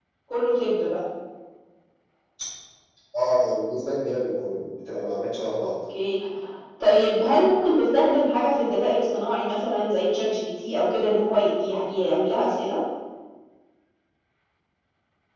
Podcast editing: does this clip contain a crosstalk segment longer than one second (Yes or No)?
No